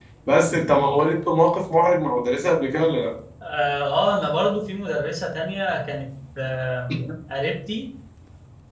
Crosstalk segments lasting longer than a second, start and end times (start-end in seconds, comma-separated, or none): none